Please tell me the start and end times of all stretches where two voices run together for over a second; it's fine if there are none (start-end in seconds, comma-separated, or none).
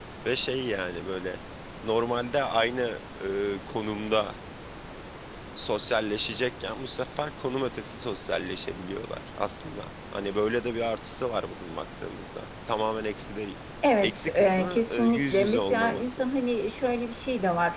14.0-16.2